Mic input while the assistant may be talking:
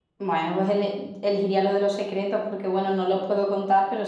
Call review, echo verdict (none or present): none